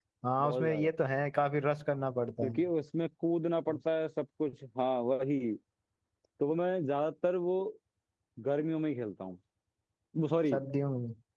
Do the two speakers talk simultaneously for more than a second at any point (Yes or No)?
No